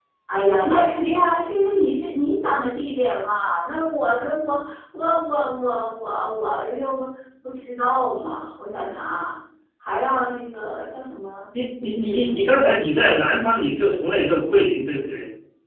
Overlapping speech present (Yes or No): No